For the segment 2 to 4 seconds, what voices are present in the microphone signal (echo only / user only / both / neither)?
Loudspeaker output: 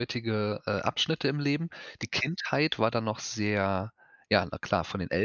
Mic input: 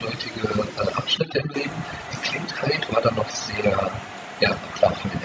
echo only